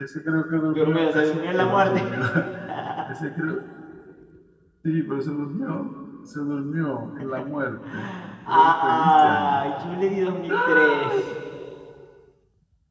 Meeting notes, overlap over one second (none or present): present